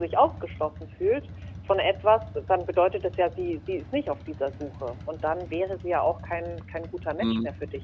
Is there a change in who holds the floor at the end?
Yes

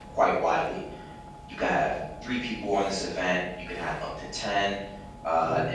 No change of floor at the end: Yes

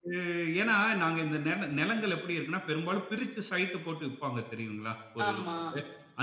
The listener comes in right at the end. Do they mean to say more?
No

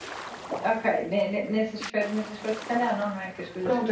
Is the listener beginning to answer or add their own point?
Yes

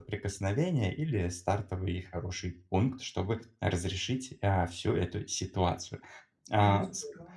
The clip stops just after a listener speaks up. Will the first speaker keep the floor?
Yes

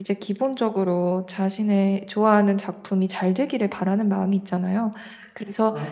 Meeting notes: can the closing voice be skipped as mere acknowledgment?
Yes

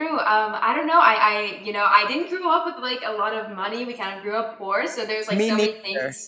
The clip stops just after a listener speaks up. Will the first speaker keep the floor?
Yes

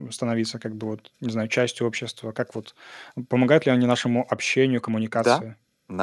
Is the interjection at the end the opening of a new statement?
Yes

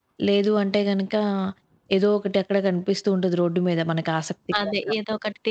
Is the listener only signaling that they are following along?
No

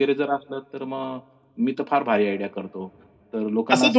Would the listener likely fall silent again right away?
No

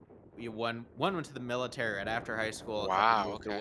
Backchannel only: Yes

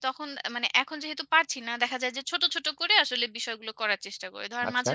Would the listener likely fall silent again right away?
Yes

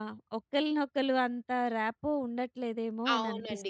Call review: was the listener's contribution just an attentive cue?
No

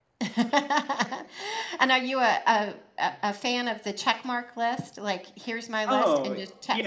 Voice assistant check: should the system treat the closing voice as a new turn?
Yes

